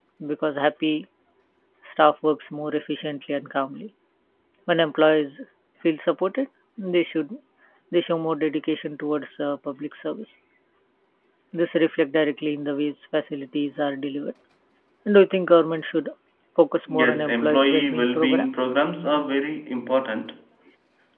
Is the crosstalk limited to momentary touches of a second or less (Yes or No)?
No